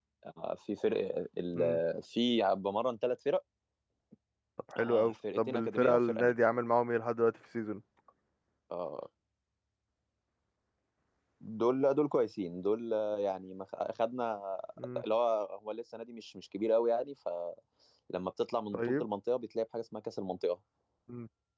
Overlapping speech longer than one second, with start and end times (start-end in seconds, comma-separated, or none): 4.8-6.3